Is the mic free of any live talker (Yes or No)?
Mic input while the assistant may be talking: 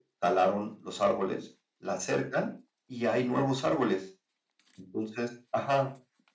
Yes